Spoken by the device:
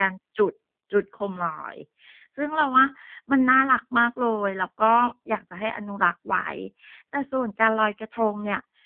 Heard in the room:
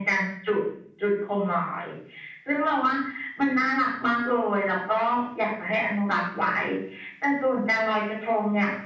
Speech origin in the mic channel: echo only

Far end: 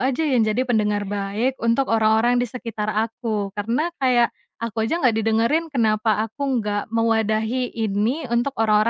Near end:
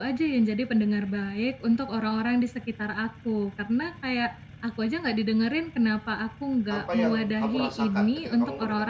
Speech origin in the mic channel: both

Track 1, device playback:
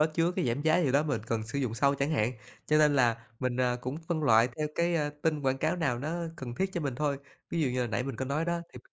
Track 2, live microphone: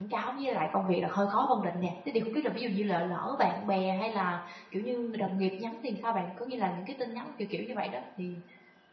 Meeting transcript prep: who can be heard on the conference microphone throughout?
user only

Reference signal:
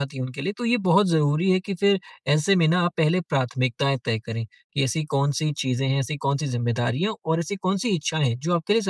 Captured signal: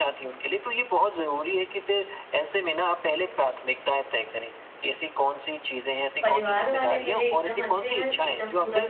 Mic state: both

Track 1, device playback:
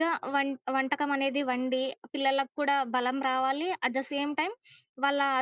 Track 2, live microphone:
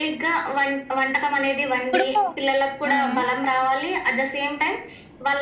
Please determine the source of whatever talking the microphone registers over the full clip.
both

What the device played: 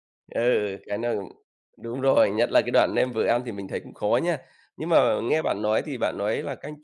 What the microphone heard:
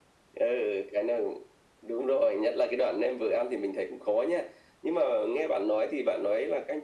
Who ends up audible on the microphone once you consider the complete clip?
echo only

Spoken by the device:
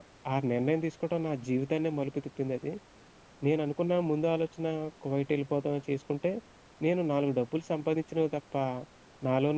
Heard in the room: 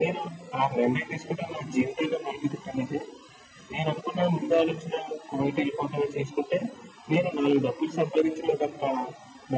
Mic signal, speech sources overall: echo only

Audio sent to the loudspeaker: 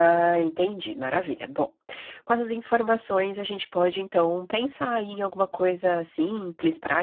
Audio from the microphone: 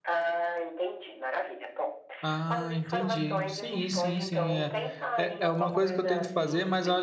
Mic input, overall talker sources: both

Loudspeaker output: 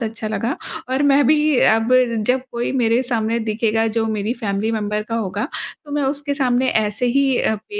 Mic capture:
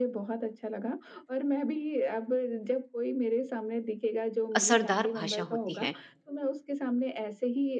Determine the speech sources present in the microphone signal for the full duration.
both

